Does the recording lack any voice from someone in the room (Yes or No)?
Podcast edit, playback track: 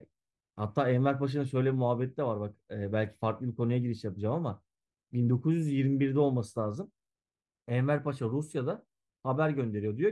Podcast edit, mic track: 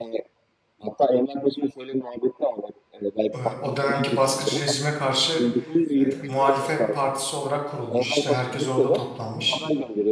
No